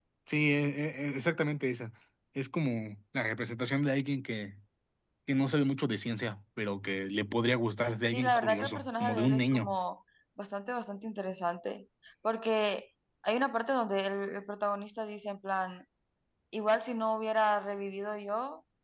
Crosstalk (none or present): present